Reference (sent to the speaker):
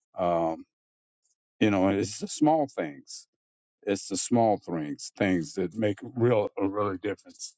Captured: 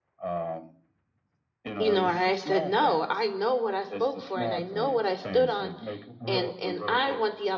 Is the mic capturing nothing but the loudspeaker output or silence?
No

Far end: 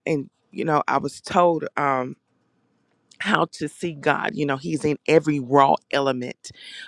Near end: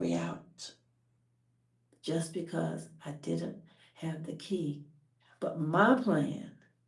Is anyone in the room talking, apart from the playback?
Yes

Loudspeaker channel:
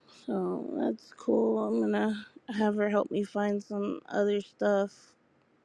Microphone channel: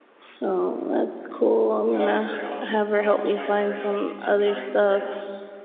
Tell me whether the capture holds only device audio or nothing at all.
No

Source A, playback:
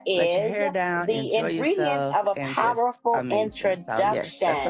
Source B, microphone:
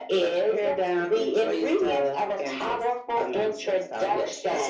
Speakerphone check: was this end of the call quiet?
Yes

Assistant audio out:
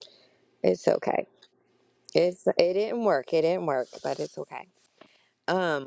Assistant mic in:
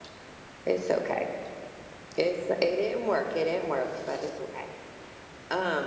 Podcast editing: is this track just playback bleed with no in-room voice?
Yes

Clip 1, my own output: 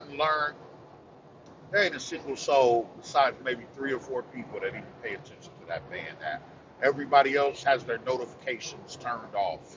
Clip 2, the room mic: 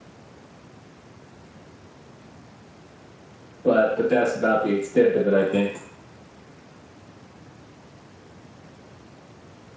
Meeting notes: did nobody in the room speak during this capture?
No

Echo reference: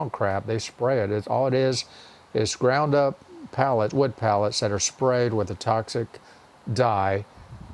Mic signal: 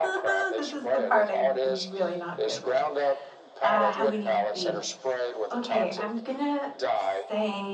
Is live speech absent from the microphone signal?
No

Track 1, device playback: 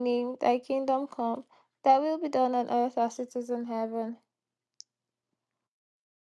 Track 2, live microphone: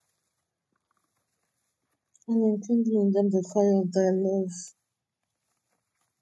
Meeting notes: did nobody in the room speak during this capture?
No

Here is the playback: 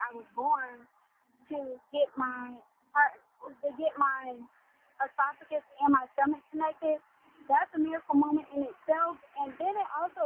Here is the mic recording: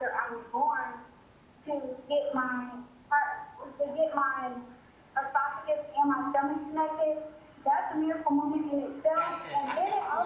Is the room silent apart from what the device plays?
No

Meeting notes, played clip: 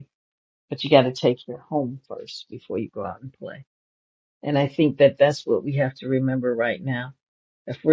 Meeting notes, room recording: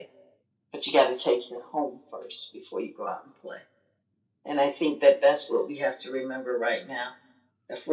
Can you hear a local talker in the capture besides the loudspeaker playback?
No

